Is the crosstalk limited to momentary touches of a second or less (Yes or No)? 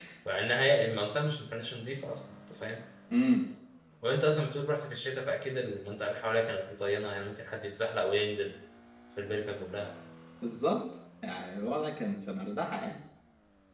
Yes